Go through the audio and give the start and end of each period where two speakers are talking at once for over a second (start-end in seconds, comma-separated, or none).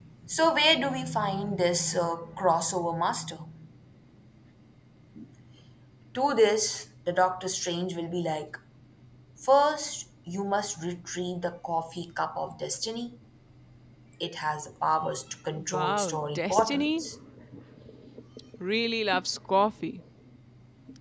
15.7-17.0